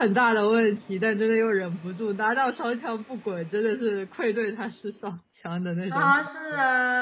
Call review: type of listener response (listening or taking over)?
taking over